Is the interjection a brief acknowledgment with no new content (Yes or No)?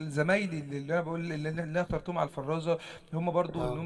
Yes